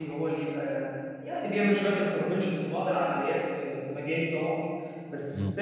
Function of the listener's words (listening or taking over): listening